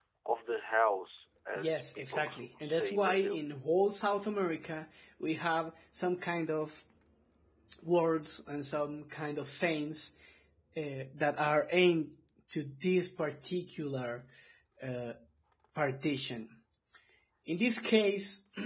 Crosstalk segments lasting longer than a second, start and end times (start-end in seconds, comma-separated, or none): 1.6-3.4